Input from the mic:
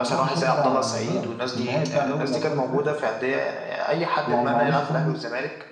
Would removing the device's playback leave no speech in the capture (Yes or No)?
Yes